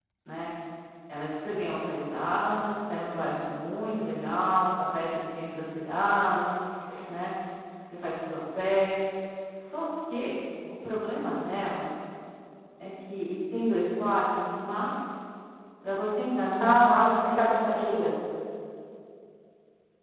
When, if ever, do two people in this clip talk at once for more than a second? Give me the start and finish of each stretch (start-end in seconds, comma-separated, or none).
16.6-18.1